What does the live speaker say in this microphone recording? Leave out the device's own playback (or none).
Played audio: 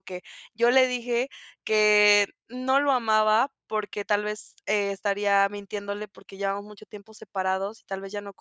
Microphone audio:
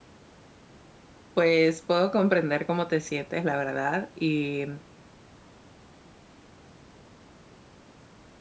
Pues puedo comprender cómo te sientes, la verdad. Y,